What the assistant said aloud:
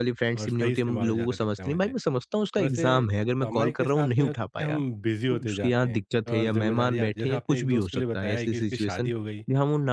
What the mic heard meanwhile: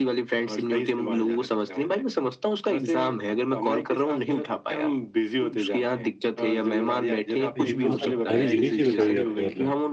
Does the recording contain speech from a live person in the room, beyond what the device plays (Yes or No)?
Yes